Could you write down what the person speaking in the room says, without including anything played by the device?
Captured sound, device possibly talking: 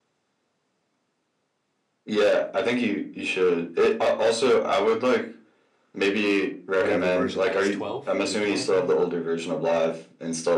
whatever version that is, twelve? Is it twelve now?

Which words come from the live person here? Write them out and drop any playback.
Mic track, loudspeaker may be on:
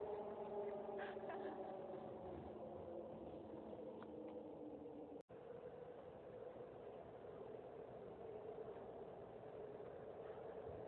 none

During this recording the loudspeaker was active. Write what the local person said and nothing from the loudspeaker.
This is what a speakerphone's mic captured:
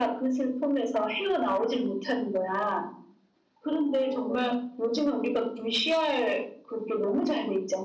none

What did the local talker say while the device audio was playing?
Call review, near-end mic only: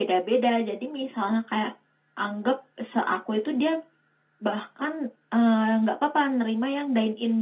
none

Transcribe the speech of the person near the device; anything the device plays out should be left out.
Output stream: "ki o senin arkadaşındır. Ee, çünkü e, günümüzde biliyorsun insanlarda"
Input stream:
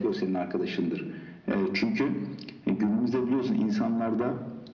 none

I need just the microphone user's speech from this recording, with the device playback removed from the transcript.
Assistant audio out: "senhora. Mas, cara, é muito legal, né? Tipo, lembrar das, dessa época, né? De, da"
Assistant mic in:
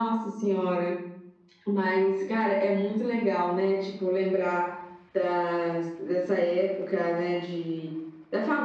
none

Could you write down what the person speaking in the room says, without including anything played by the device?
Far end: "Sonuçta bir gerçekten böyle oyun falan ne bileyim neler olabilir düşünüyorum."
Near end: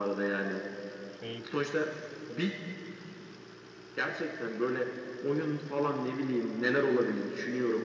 Şey

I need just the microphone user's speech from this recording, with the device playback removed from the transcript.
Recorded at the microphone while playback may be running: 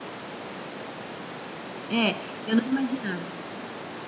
É, eu não imaginava.

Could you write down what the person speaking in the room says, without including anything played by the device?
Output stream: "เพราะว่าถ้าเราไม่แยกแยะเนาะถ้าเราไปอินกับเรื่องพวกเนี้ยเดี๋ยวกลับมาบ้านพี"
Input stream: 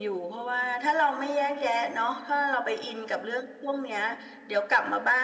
none

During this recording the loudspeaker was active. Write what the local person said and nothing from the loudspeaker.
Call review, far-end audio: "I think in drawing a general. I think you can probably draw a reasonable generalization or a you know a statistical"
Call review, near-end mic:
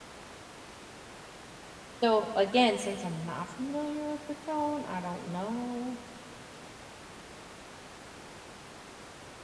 So again, since I'm not familiar with the tone, I don't know.

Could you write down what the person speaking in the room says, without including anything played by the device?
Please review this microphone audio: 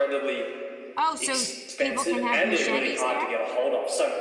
Oh, so people can have machetes there?

